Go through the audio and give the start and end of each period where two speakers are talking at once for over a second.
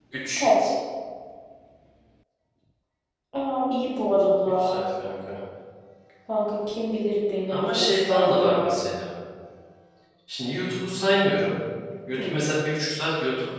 7.5-8.8

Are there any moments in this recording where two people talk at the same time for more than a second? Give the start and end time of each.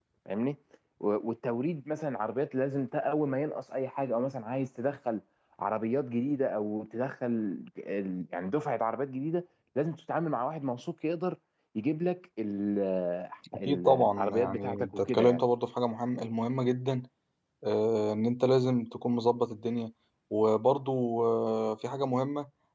13.7-15.4

